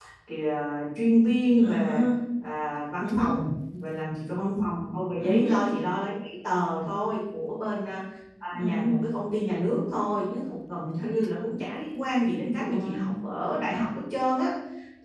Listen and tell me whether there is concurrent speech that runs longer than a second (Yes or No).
No